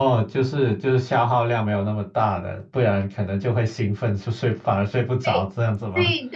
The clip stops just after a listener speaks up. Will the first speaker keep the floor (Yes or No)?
No